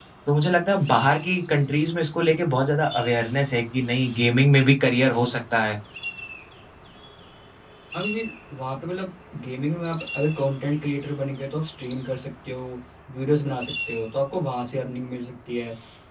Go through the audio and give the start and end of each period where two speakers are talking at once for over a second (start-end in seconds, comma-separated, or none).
none